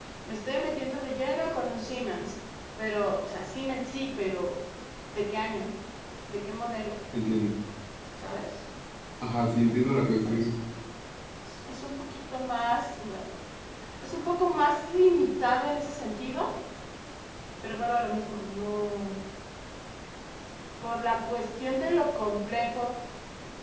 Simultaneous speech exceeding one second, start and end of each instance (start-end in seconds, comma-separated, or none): none